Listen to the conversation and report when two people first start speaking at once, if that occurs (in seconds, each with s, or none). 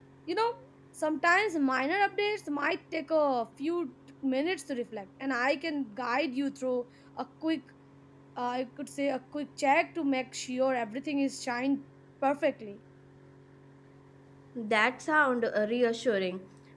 none